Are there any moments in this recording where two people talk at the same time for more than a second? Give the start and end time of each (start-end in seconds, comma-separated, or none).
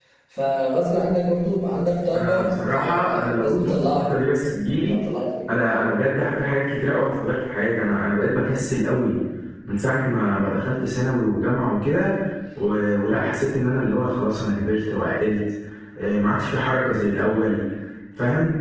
2.1-4.1